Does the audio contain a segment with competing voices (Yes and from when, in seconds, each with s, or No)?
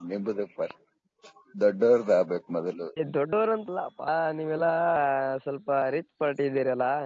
No